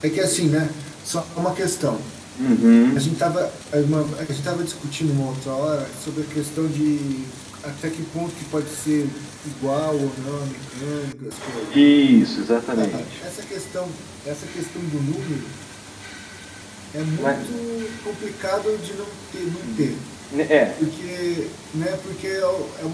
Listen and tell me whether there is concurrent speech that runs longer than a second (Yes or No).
No